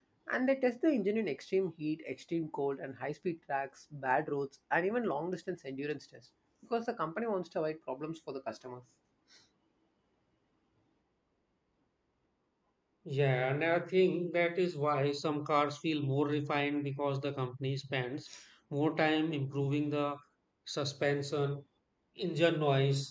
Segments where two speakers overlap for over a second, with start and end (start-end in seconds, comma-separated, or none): none